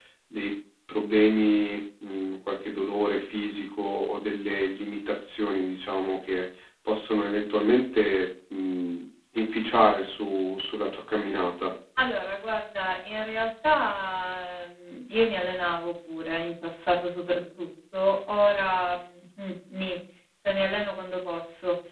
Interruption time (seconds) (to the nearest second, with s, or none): none